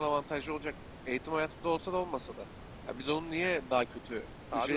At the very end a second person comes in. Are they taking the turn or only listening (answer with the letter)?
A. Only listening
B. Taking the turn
A